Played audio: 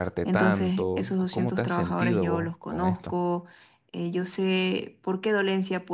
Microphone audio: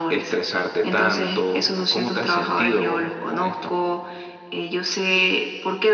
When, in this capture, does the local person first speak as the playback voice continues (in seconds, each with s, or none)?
none